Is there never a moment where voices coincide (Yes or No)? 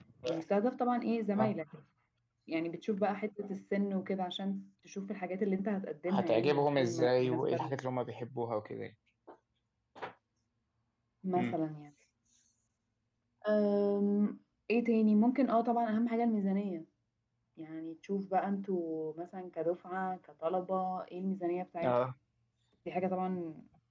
No